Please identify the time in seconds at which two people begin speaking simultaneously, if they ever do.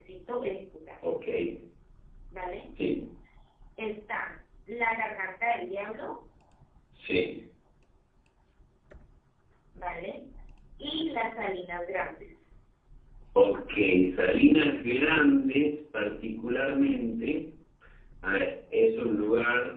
none

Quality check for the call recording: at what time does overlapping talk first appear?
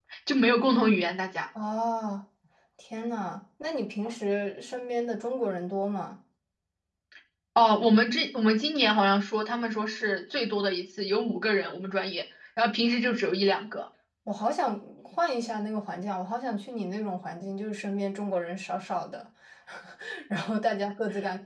none

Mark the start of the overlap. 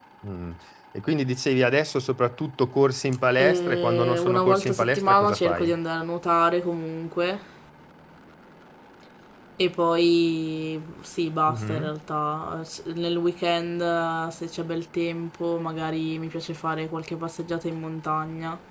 3.4 s

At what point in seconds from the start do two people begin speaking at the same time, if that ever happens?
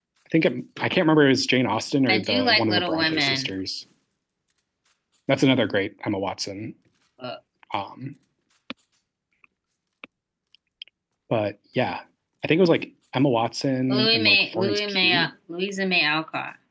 2.1 s

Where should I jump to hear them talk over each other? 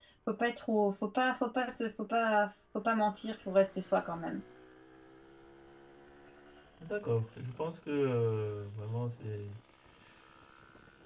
none

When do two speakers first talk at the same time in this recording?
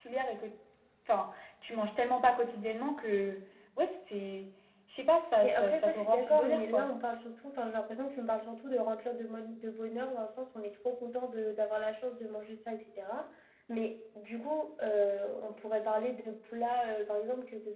5.4 s

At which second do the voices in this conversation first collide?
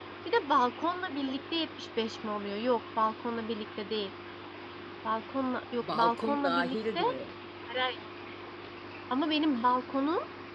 5.8 s

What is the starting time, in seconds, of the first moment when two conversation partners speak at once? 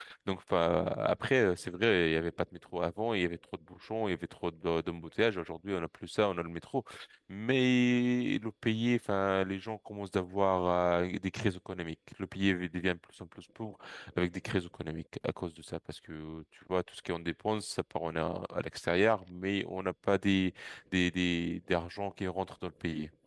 none

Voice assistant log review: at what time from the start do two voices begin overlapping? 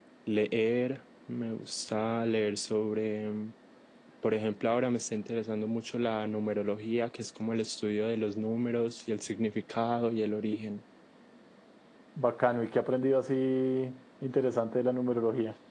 none

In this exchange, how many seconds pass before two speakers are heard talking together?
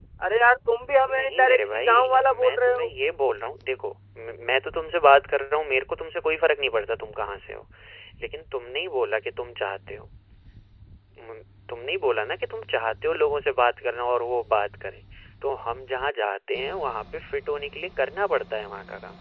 1.2 s

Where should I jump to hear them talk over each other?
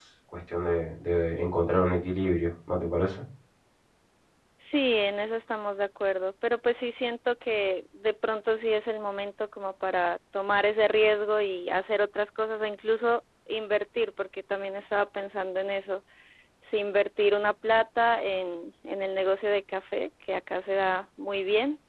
none

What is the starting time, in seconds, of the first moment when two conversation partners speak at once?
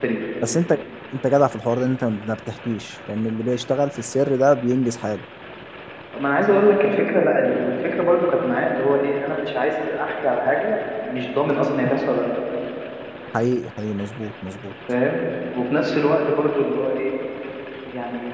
none

